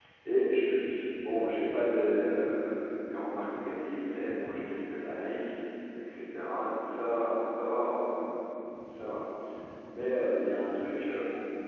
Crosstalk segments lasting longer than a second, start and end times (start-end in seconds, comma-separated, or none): none